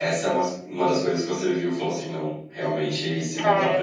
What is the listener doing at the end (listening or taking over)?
taking over